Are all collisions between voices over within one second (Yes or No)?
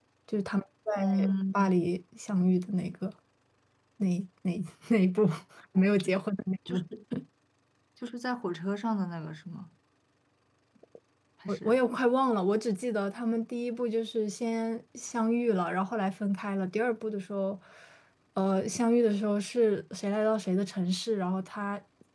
Yes